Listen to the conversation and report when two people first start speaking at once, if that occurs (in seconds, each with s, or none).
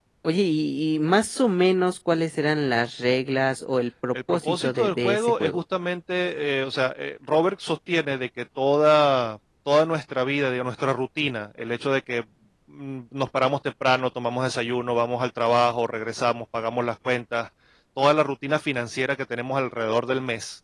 4.1 s